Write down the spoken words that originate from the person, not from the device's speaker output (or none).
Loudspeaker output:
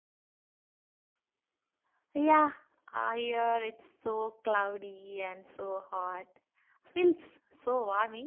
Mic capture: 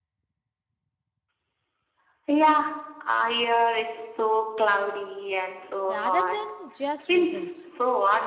rather than just results.